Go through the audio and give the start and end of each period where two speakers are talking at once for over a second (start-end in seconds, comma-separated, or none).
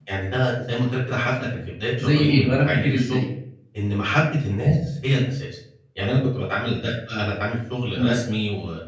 2.0-3.2